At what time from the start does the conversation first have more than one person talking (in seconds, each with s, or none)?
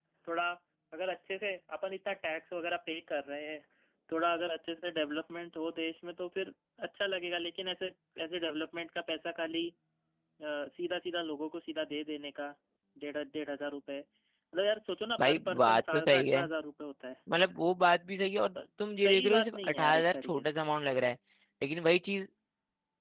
15.2 s